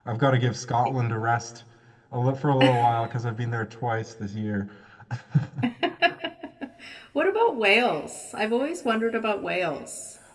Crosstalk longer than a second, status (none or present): none